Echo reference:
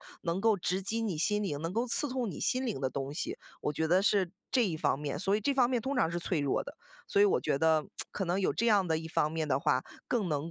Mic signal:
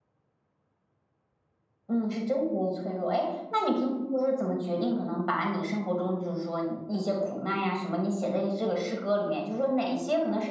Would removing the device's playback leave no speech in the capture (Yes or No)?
No